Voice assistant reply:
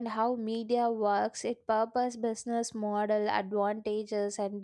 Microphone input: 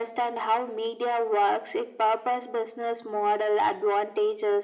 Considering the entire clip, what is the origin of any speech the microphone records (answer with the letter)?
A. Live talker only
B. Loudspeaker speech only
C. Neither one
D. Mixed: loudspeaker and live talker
B